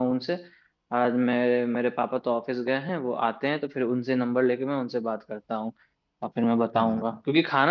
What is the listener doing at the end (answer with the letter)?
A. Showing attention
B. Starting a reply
A